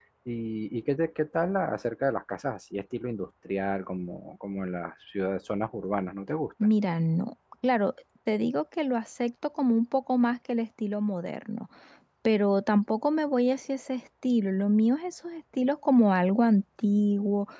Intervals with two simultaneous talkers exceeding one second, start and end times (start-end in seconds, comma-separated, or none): none